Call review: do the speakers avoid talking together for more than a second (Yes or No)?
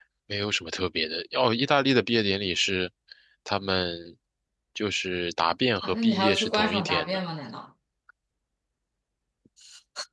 No